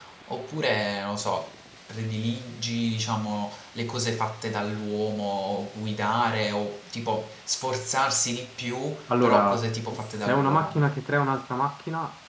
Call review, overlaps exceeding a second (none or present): present